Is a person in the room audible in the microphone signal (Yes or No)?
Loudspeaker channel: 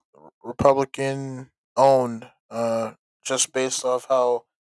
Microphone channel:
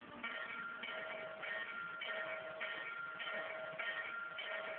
No